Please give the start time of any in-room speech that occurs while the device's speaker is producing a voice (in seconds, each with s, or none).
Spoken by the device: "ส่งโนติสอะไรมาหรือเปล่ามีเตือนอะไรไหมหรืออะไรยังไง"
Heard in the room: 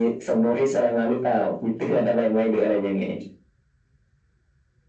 none